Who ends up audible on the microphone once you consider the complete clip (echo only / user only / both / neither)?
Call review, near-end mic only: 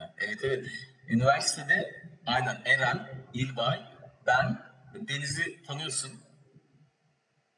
echo only